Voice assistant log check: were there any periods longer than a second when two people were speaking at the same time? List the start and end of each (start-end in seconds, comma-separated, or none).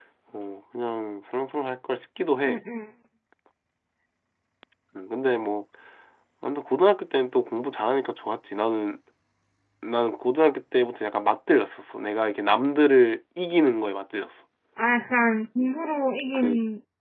none